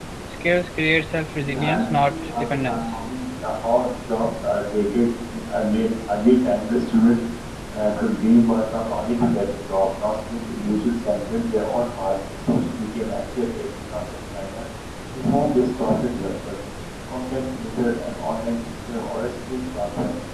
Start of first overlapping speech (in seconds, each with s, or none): 1.4 s